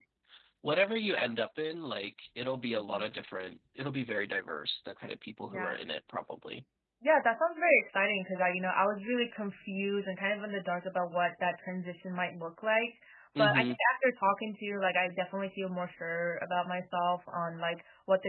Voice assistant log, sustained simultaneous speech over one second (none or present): none